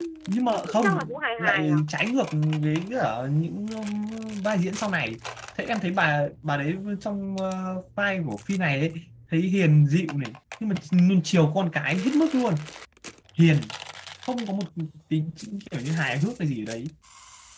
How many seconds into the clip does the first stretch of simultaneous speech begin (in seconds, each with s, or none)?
0.5 s